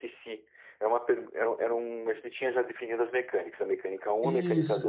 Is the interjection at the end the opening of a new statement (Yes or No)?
Yes